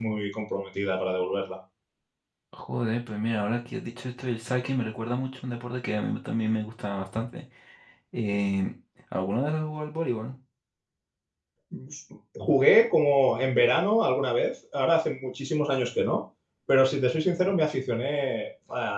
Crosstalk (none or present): none